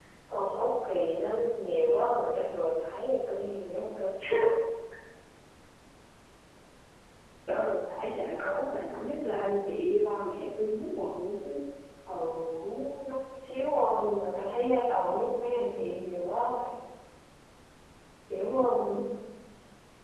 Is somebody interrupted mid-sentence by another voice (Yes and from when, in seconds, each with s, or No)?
No